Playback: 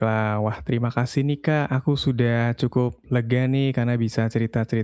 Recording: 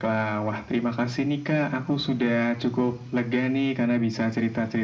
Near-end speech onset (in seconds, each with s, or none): none